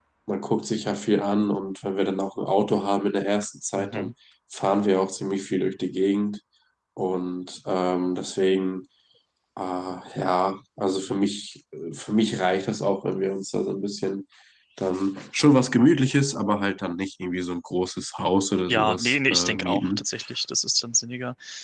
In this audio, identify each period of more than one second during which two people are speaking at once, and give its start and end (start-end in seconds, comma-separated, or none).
18.7-20.0